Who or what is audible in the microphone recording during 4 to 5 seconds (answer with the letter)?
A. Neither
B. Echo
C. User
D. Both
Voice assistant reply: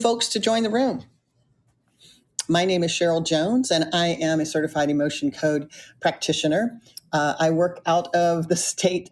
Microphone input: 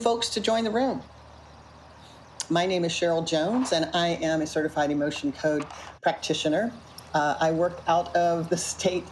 B